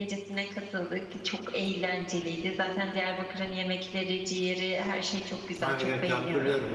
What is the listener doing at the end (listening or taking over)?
taking over